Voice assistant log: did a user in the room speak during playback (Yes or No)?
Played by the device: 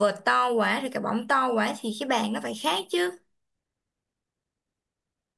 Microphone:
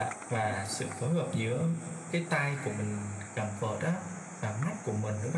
Yes